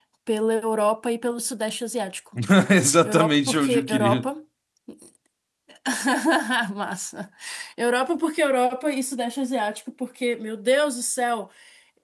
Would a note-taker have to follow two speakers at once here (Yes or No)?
Yes